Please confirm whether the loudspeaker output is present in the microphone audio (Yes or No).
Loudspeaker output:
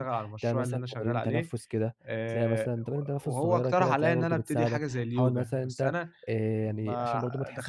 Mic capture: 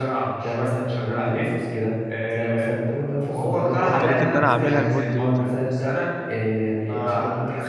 Yes